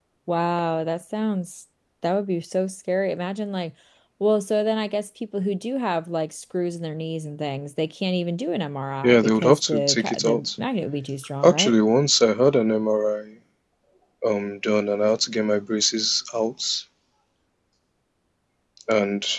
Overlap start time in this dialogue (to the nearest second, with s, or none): 9 s